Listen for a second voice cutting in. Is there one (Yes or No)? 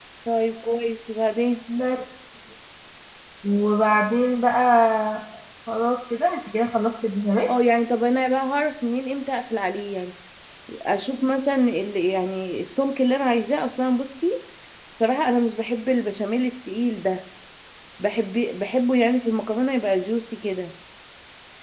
No